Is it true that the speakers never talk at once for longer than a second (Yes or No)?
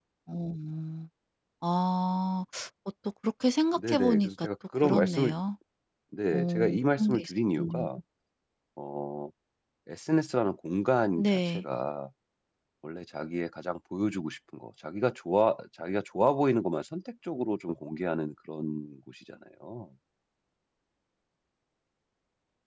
No